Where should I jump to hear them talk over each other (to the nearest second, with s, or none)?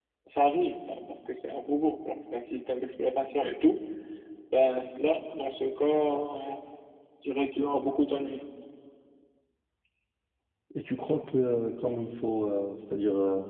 none